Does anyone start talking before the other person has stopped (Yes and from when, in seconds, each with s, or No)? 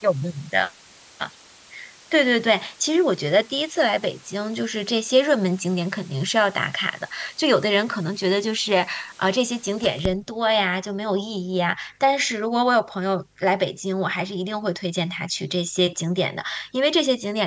No